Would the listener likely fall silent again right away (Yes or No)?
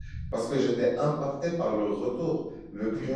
Yes